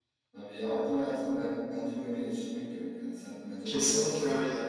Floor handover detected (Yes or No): Yes